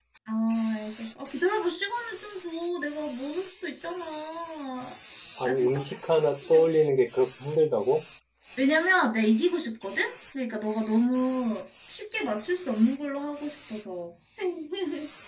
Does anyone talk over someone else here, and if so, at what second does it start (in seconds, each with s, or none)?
5.4 s